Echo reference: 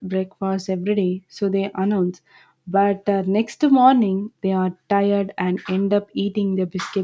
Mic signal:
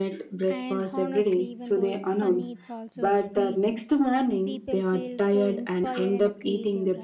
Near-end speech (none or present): present